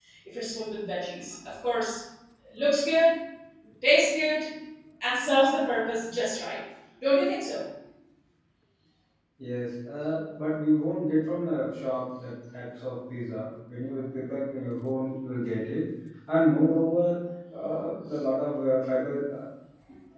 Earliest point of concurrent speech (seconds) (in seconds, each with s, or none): none